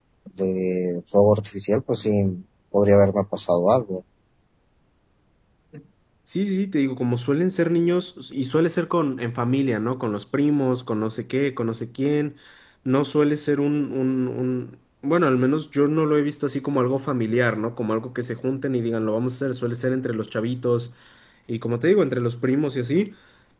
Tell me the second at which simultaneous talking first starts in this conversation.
none

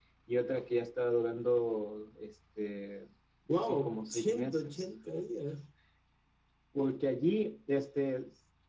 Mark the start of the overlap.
3.6 s

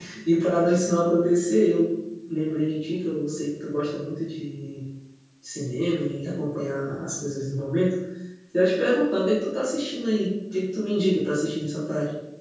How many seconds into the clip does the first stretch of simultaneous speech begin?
none

